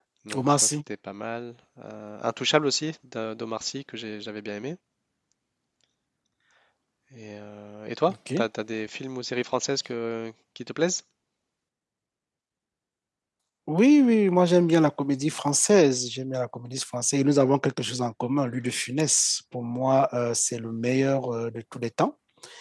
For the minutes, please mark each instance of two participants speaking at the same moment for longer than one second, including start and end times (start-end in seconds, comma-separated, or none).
none